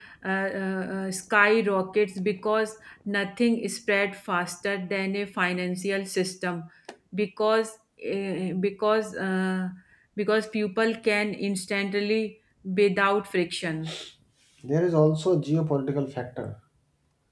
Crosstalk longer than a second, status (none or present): none